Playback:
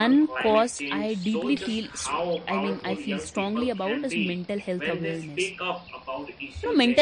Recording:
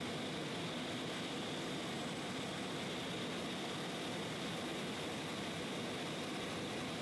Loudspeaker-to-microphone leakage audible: No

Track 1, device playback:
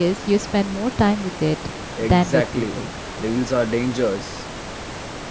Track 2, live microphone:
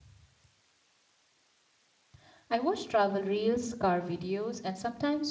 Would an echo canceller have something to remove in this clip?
No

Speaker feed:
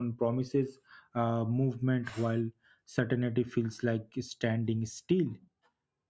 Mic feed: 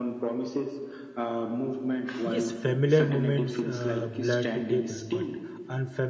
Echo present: Yes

